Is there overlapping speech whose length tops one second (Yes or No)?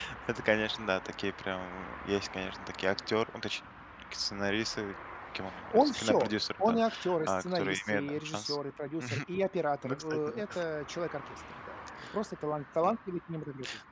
Yes